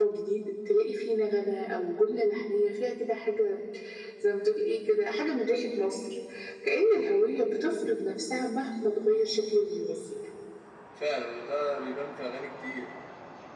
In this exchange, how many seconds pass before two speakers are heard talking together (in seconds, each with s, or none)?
none